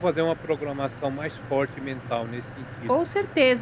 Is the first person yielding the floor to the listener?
Yes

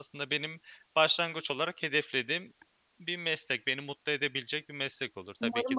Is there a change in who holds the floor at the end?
Yes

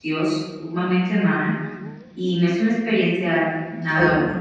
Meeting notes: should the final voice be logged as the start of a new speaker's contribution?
Yes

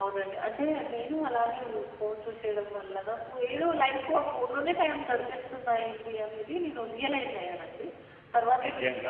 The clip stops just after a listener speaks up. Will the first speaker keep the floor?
Yes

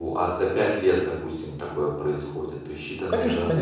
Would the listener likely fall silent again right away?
No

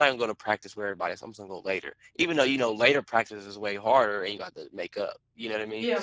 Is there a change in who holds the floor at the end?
Yes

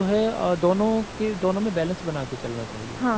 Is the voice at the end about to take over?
Yes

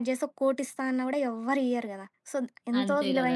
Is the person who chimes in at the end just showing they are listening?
Yes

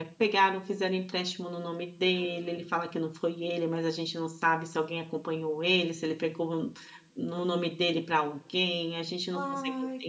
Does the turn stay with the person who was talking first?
Yes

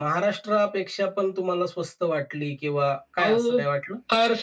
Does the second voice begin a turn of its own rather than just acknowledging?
Yes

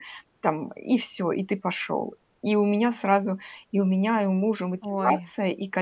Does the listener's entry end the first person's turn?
No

